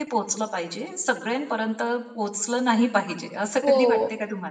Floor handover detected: Yes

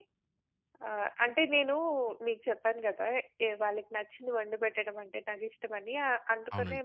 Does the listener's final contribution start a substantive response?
No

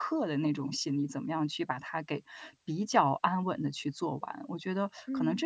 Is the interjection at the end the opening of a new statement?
No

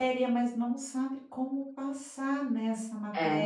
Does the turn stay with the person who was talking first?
Yes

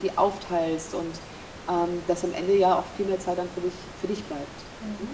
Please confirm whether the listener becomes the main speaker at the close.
Yes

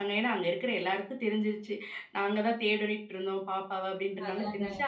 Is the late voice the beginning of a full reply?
No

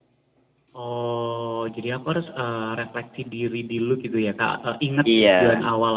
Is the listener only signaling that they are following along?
Yes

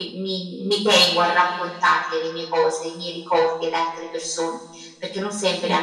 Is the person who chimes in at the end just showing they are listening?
Yes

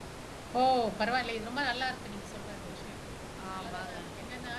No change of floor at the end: Yes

